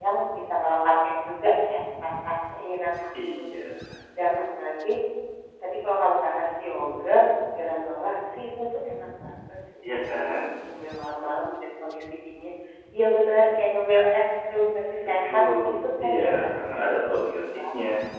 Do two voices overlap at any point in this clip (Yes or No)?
Yes